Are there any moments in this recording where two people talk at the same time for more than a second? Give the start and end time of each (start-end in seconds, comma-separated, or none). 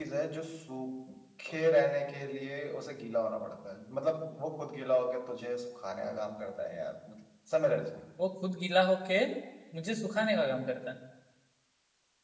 none